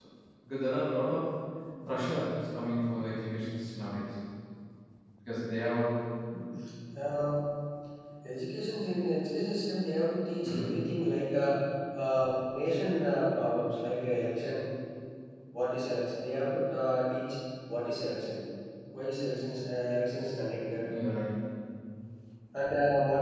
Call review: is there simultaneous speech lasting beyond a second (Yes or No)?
No